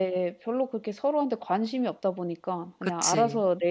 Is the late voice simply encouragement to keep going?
Yes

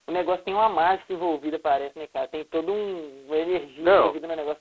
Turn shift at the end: No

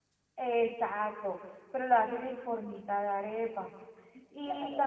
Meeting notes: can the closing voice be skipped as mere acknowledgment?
No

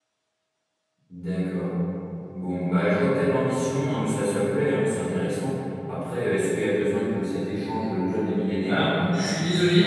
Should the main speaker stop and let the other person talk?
Yes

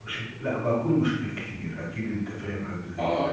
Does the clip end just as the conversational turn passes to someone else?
Yes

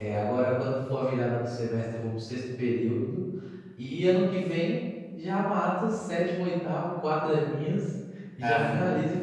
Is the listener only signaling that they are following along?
Yes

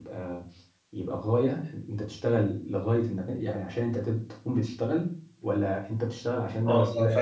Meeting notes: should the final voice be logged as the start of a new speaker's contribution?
Yes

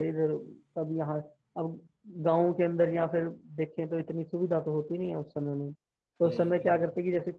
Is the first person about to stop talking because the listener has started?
No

